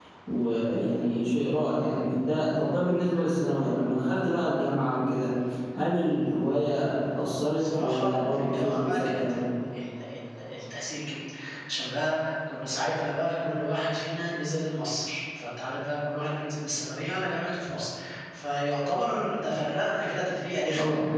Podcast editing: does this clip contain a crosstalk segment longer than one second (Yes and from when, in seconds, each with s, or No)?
Yes, from 7.6 s